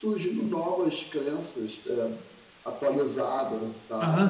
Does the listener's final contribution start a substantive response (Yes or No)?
Yes